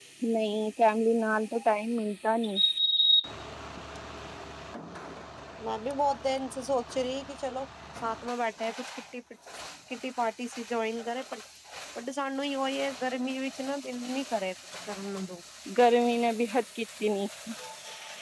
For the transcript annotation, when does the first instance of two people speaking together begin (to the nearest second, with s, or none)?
none